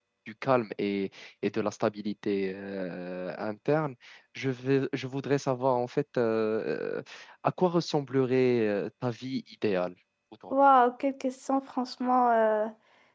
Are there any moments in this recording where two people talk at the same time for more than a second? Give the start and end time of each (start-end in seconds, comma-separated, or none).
none